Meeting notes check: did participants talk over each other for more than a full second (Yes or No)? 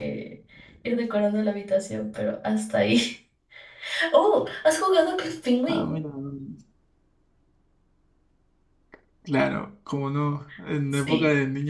No